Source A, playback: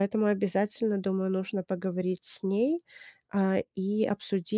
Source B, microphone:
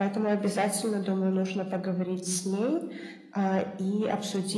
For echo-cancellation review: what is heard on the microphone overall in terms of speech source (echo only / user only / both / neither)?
echo only